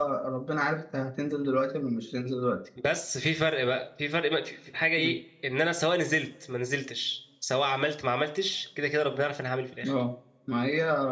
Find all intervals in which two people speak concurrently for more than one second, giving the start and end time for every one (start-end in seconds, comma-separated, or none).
none